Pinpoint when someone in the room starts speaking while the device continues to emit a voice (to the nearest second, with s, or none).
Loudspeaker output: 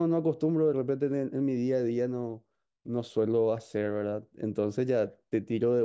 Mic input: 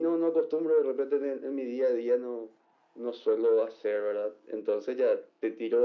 none